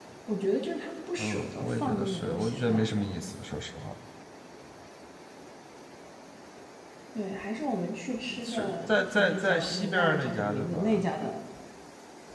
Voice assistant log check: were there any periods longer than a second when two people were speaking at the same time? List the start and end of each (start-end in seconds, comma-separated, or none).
1.2-3.2, 8.4-11.0